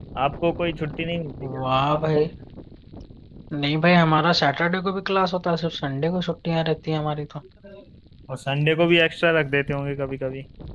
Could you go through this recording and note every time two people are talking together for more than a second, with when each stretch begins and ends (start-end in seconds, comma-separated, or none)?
none